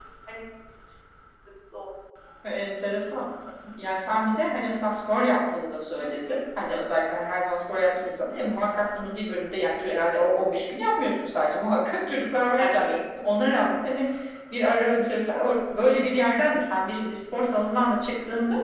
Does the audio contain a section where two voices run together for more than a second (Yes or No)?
No